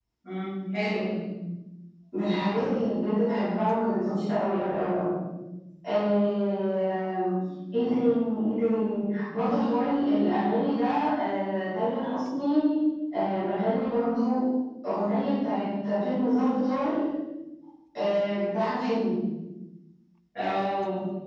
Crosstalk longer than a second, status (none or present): none